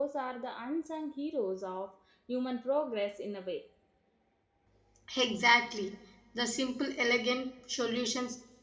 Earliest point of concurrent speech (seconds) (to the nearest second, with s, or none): none